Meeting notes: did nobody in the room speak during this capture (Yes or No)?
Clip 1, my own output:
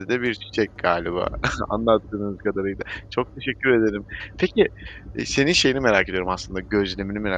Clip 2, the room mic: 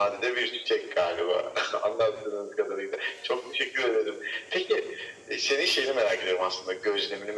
Yes